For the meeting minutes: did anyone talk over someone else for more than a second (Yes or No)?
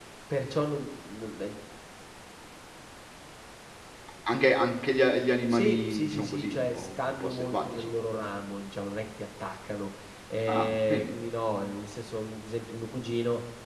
Yes